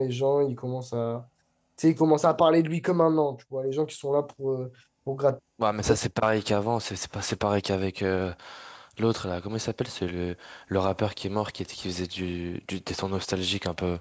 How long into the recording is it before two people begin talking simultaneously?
none

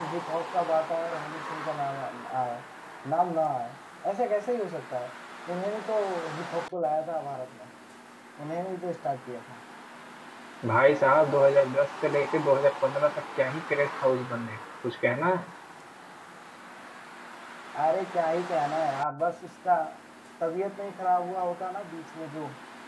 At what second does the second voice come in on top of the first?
none

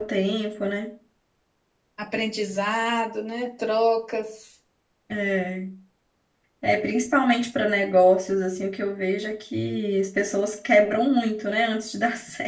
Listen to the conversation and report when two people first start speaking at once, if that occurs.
none

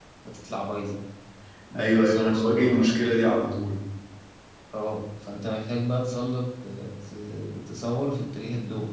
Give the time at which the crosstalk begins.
2 s

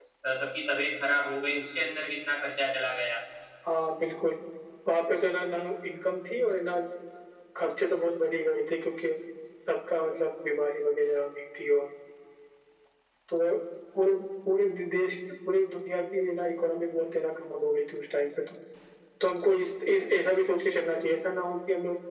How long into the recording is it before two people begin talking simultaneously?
none

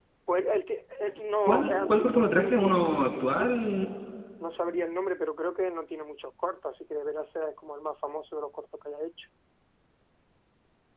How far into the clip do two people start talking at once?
1 s

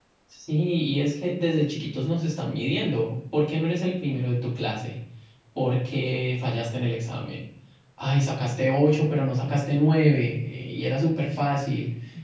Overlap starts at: none

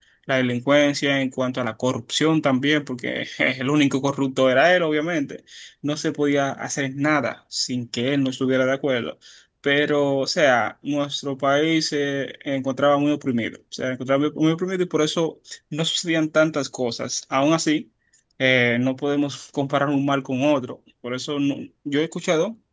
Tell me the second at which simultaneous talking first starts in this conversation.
none

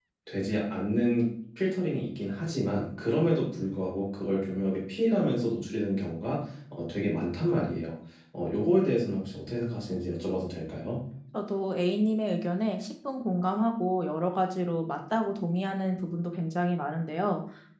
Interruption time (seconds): none

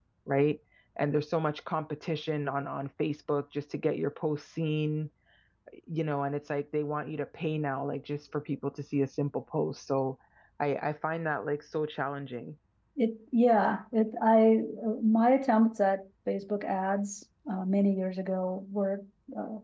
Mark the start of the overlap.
none

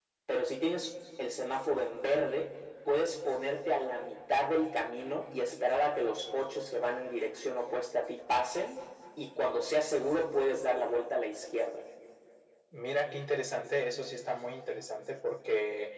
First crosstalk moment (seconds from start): none

